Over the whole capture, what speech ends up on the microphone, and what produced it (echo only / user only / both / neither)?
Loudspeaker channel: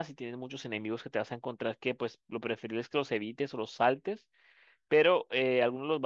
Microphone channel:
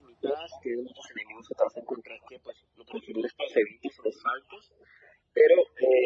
echo only